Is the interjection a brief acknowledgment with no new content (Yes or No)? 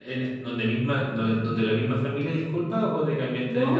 No